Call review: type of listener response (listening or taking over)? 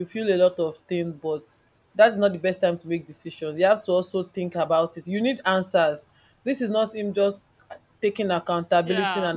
taking over